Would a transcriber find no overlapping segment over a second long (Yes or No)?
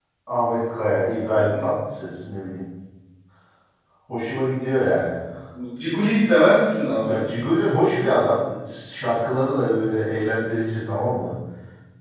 Yes